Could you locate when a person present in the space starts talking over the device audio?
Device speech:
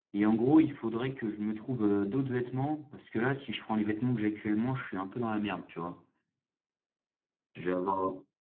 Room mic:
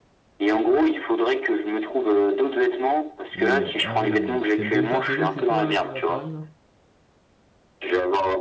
3.3 s

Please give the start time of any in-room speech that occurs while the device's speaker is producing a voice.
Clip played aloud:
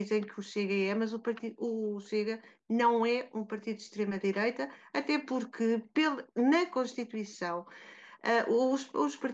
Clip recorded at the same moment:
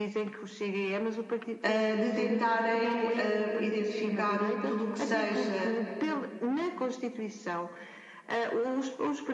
1.6 s

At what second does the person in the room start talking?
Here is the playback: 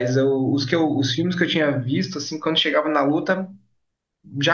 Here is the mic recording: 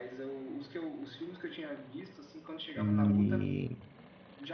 2.7 s

